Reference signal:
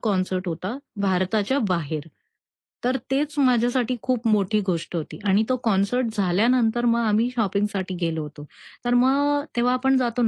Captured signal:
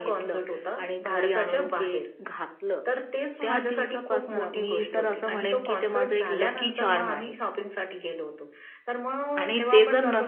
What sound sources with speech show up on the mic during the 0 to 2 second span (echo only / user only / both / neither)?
both